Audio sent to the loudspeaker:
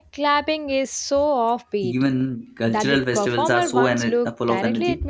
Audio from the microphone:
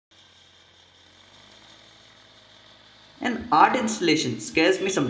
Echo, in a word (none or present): none